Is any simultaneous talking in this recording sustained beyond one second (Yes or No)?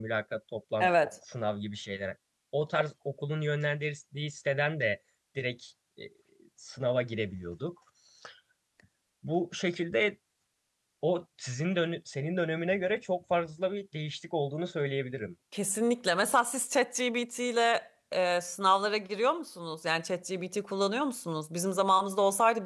No